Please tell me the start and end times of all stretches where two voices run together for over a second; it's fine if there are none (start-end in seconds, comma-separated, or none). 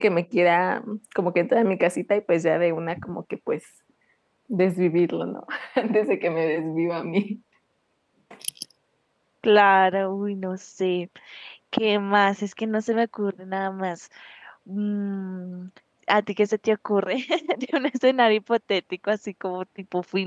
none